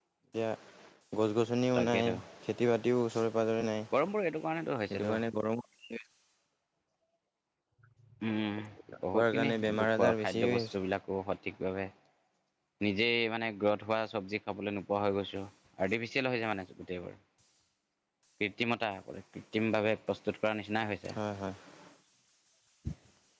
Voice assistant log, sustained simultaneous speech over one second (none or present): present